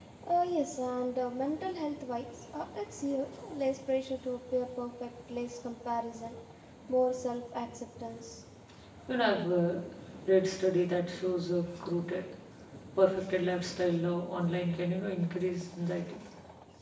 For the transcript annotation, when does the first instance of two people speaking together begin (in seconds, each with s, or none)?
none